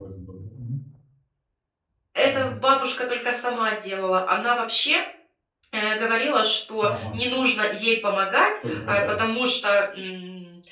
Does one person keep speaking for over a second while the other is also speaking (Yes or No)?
No